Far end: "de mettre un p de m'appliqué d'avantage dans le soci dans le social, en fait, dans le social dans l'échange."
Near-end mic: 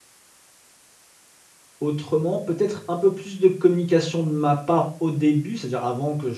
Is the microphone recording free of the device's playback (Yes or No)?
Yes